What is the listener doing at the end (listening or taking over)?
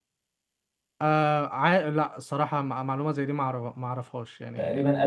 taking over